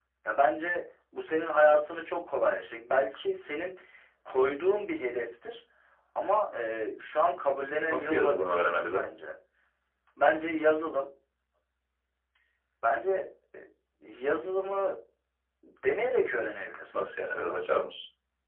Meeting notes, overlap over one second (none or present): present